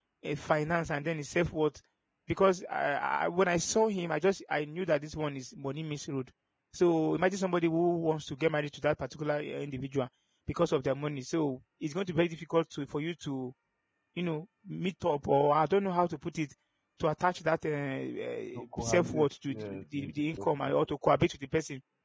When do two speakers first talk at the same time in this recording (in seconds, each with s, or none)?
18.6 s